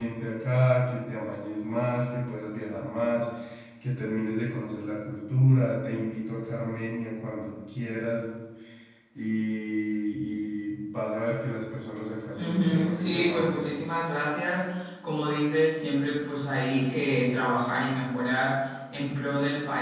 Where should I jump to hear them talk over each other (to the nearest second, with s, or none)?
12 s